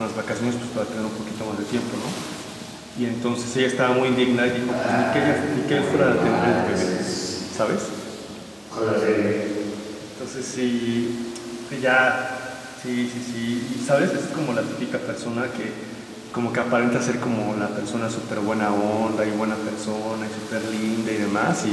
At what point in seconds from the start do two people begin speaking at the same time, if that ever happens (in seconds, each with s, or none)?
4.7 s